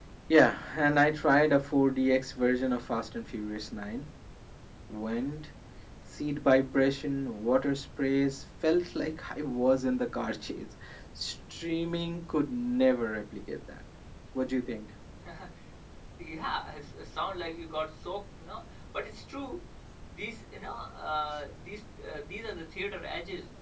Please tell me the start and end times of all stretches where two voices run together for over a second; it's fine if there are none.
none

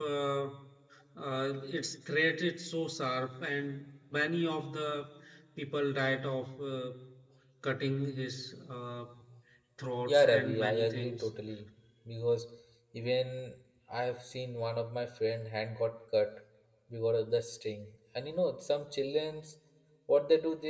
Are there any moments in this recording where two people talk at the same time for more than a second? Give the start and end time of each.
10.1-11.3

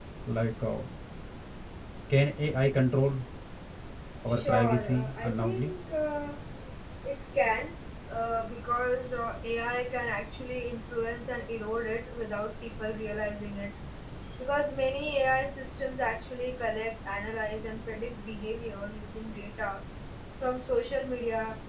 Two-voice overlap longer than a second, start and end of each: 4.3-5.7

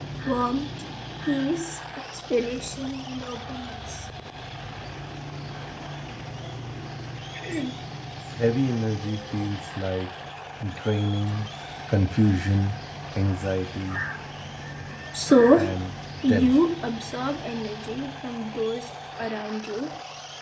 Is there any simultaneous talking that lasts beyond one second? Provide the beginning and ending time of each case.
none

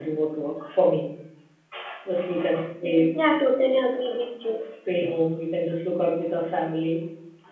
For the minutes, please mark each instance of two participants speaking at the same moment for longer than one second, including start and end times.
none

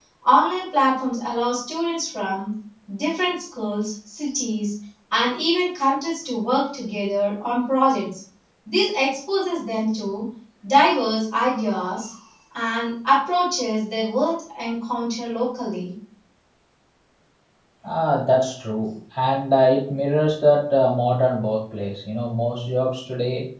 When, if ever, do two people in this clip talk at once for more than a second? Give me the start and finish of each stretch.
none

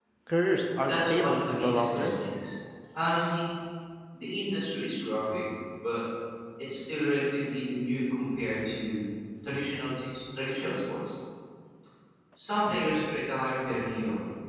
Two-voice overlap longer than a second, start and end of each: 0.8-2.2

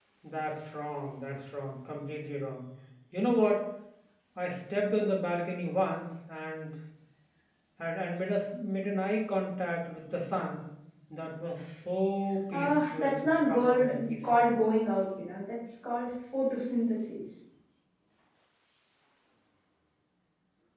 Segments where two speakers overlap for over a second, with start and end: 12.5-14.5

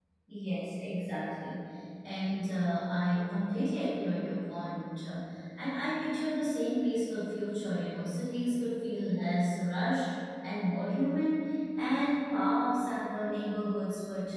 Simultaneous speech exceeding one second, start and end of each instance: none

